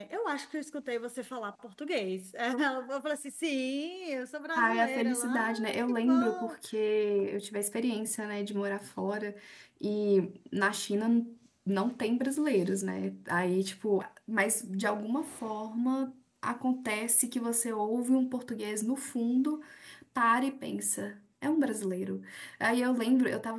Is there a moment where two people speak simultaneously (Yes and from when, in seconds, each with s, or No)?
Yes, from 4.6 s